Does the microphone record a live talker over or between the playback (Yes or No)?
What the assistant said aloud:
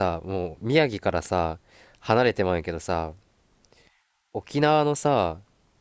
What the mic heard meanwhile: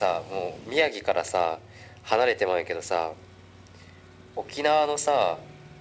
No